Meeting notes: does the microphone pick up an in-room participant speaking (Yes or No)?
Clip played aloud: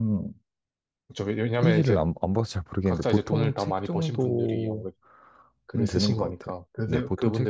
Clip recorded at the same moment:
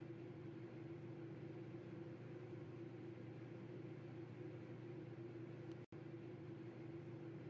No